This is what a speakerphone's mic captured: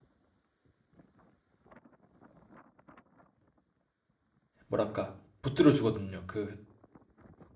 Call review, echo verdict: none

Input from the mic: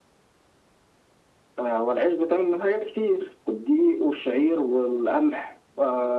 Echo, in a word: present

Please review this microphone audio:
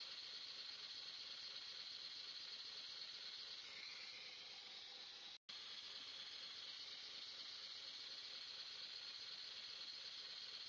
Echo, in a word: none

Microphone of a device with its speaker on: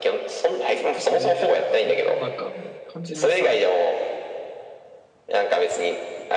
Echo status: present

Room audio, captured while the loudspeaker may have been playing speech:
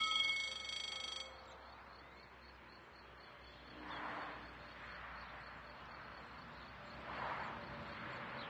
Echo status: none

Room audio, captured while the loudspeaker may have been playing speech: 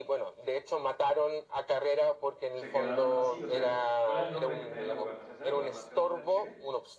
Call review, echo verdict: present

